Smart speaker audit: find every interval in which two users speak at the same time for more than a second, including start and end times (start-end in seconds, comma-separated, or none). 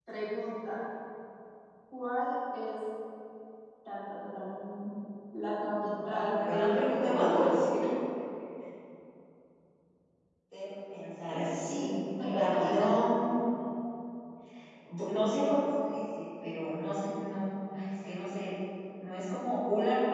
6.0-7.6